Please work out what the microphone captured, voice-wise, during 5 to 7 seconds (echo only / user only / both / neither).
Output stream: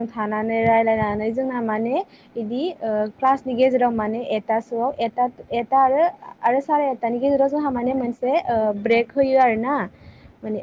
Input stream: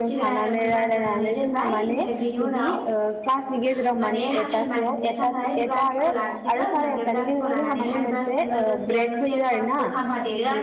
both